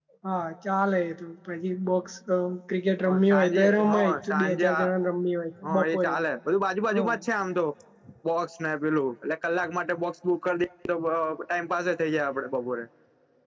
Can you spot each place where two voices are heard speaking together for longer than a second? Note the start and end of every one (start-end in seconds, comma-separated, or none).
3.0-4.9